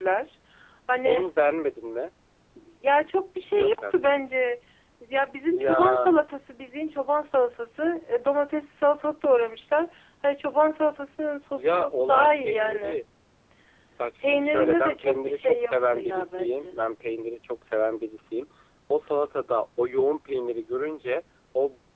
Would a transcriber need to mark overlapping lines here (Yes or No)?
Yes